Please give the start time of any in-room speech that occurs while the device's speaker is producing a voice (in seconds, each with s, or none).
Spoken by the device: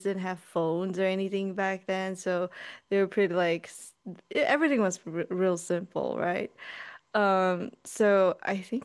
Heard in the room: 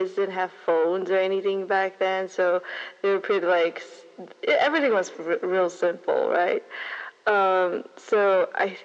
none